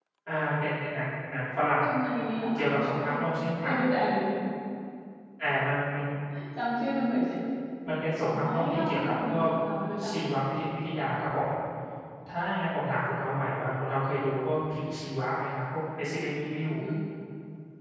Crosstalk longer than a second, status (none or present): present